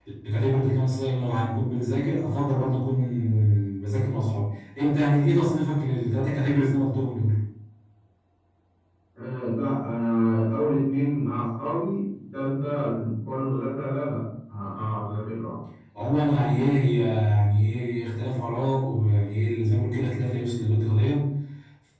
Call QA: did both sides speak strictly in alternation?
Yes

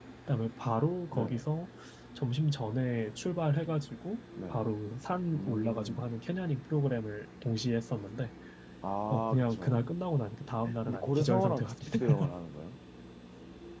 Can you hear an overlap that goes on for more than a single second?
Yes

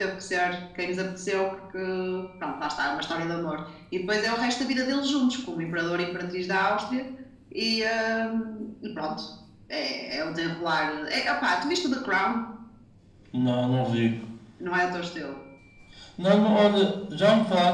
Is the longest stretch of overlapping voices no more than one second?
Yes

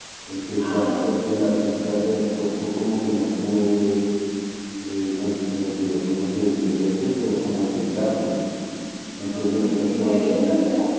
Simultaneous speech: Yes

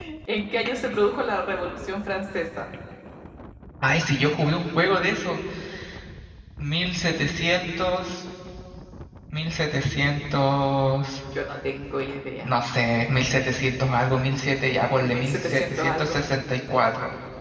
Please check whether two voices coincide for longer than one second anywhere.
Yes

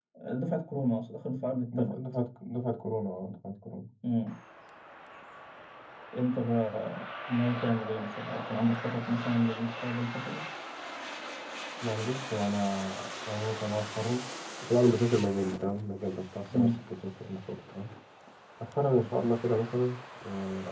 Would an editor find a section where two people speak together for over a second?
No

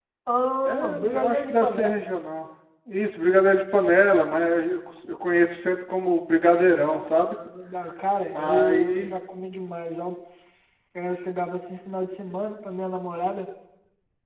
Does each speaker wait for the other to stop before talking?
No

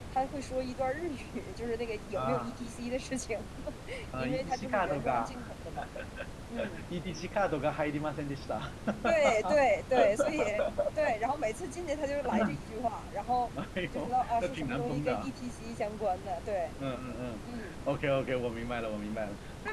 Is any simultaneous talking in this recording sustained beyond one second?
Yes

